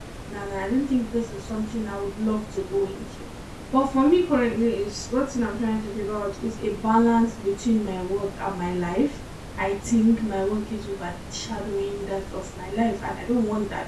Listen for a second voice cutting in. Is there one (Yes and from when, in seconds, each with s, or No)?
No